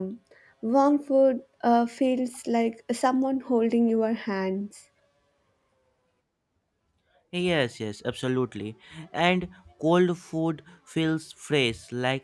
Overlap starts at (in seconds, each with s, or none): none